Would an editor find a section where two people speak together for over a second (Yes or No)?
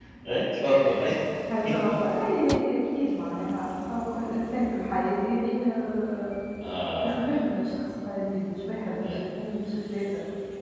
No